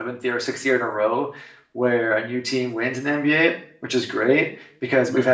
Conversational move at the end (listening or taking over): listening